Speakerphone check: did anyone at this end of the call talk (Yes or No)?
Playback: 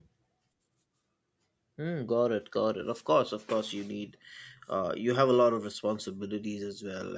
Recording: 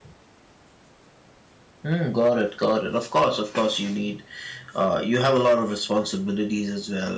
No